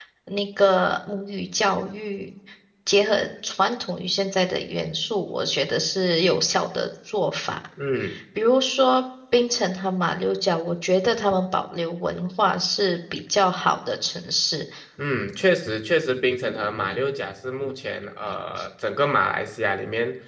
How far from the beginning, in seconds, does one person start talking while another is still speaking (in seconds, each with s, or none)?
none